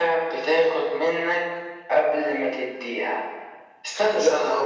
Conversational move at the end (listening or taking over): taking over